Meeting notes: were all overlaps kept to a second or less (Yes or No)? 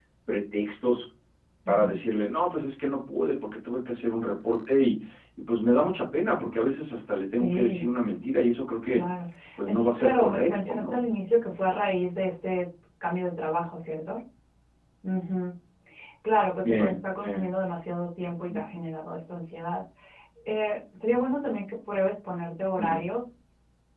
No